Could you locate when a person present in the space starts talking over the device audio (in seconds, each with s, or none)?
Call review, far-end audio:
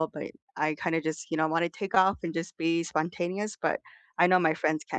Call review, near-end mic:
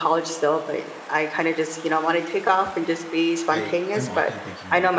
3.5 s